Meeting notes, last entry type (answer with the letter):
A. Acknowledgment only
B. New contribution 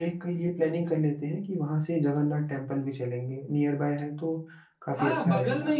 B